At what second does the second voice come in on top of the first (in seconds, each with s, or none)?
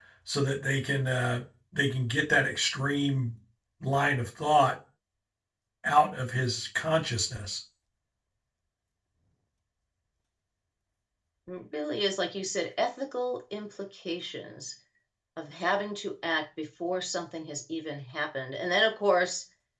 none